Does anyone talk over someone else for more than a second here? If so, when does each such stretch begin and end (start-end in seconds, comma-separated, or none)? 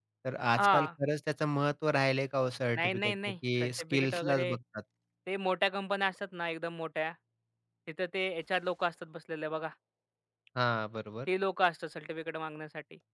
2.8-4.5